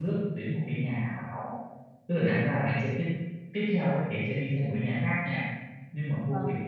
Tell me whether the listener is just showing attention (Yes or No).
Yes